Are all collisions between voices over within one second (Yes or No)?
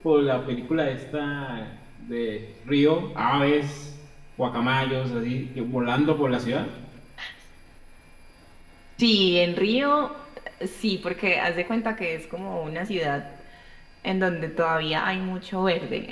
Yes